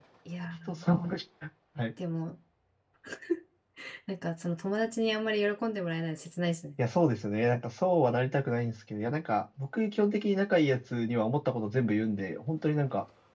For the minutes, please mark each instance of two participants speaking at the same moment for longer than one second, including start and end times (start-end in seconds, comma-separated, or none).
none